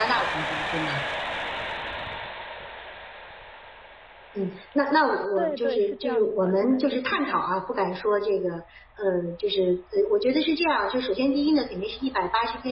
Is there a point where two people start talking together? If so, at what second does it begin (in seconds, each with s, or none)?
5.4 s